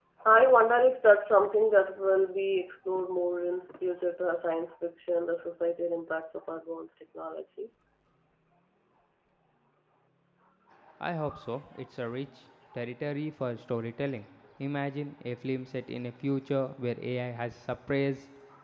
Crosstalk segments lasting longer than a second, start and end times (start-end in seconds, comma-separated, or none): none